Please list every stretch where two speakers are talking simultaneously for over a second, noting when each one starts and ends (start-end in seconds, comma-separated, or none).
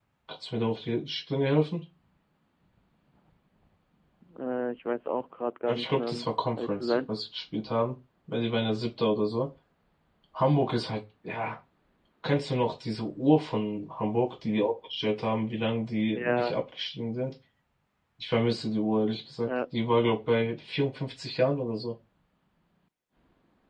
5.7-7.1